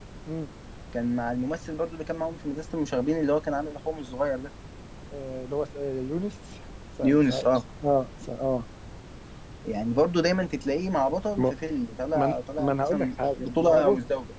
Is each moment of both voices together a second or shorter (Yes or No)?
No